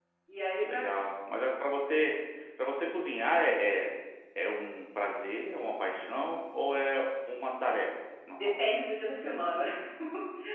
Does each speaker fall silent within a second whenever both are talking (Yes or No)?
Yes